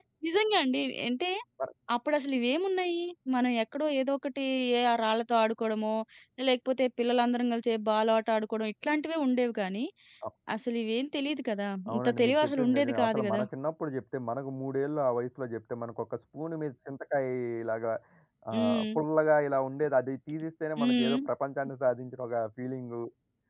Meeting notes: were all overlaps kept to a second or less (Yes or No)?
No